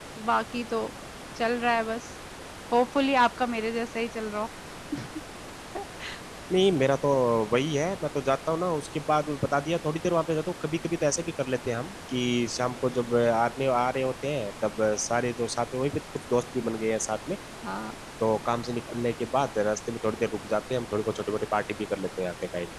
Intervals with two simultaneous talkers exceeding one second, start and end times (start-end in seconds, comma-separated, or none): none